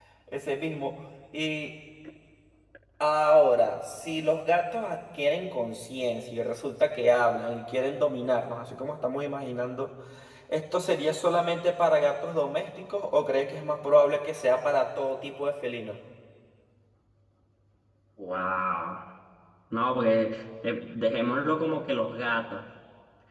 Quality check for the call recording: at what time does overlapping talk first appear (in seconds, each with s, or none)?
none